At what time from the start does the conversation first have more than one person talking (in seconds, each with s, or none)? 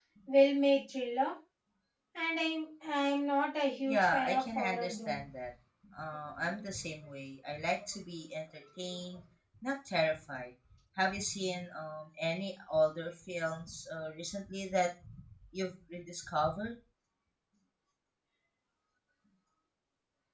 3.9 s